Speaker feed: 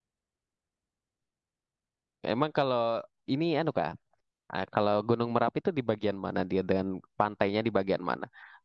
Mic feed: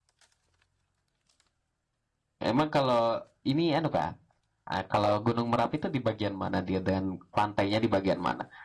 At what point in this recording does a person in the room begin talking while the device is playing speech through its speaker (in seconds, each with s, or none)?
none